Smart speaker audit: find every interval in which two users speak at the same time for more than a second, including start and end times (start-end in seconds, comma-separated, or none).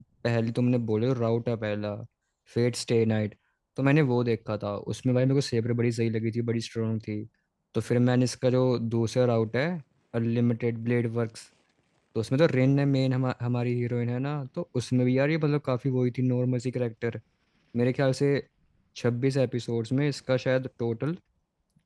none